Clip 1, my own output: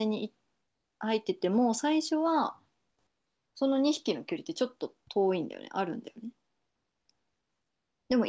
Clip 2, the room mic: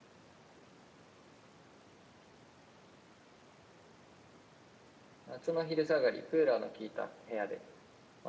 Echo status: none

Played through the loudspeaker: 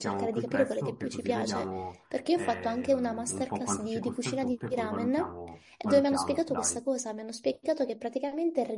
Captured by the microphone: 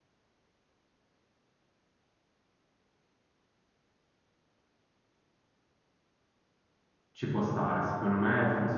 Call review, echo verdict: none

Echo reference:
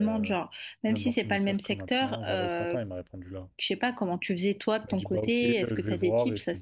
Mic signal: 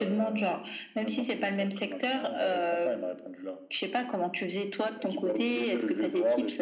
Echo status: present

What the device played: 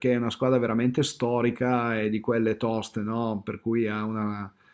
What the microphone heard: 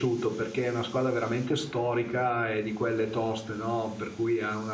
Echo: present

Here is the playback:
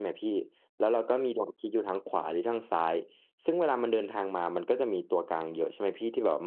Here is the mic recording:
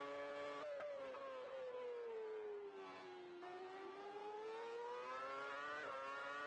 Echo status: none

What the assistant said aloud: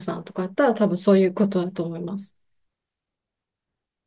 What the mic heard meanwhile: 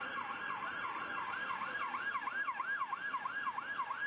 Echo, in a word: none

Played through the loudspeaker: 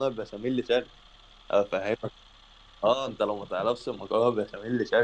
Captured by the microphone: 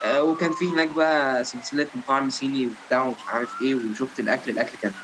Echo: none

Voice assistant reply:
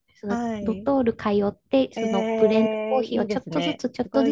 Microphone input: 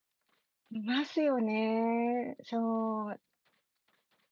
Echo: none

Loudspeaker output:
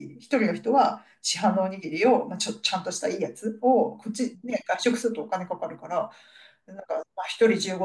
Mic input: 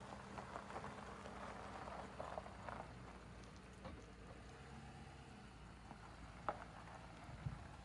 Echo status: none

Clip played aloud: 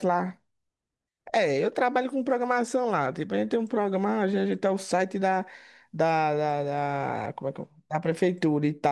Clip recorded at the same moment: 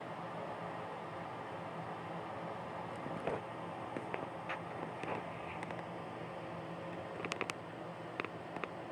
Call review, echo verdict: none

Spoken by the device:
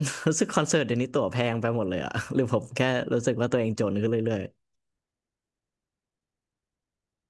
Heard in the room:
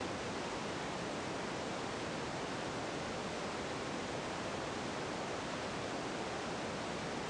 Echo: none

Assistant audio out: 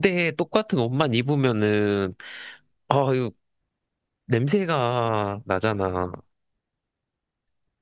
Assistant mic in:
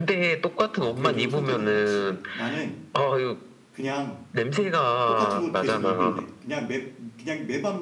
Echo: present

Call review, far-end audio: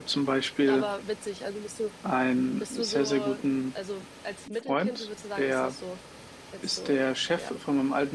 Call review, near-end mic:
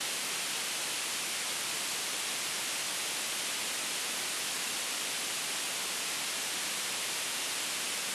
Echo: none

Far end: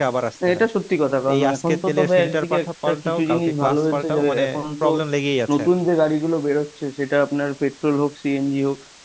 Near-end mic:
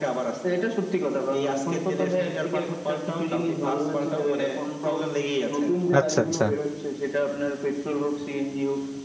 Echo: present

